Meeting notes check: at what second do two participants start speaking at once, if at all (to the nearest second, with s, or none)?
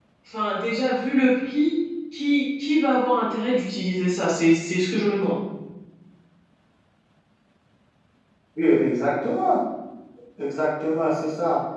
none